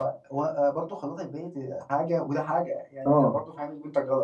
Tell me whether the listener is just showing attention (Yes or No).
Yes